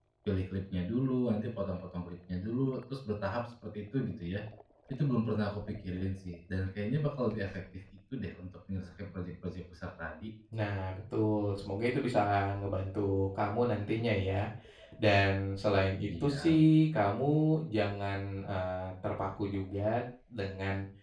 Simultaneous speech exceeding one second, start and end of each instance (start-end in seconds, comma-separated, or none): none